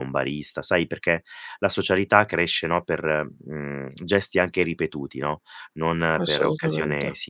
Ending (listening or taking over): listening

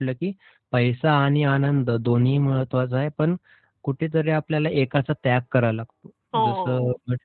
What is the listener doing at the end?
listening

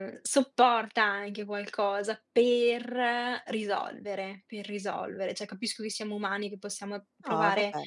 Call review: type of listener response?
taking over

